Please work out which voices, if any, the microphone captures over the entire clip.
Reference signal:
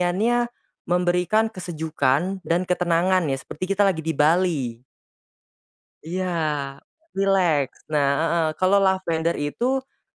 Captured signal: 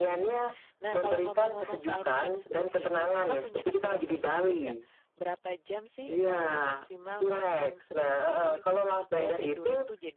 both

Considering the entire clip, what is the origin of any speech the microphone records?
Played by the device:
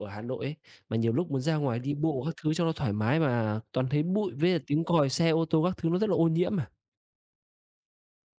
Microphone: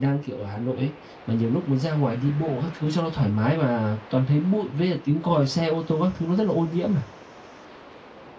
echo only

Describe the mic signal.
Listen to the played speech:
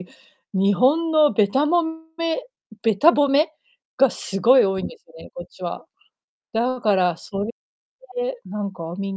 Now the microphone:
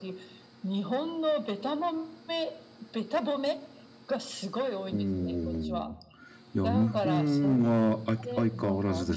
both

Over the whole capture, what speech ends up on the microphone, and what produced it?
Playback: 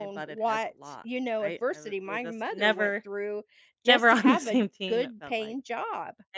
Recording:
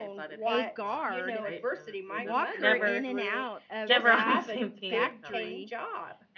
both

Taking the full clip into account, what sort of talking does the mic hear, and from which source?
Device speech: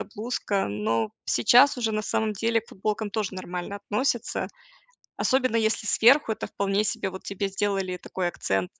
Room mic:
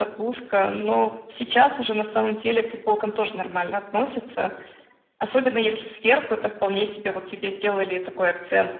echo only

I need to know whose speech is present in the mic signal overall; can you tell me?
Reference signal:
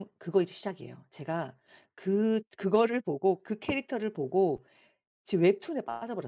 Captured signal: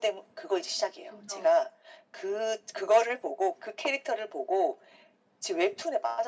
both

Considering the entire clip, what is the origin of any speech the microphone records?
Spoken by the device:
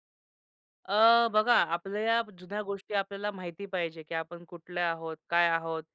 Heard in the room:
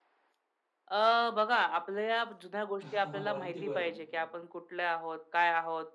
both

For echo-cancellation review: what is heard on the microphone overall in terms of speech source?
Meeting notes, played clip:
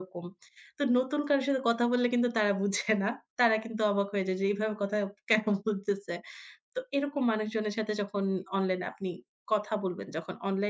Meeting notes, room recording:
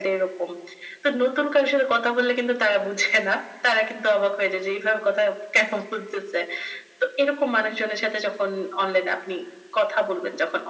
echo only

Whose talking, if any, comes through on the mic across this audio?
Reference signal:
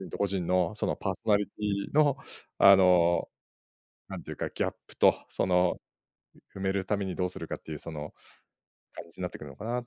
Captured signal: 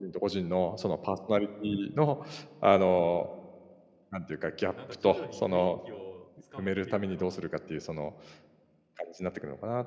both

